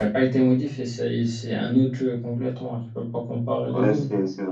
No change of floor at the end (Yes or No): No